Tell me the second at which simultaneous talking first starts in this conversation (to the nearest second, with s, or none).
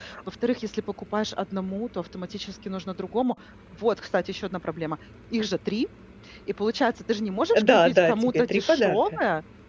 8 s